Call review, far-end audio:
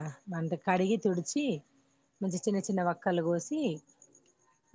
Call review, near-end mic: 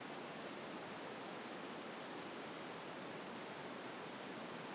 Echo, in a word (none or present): none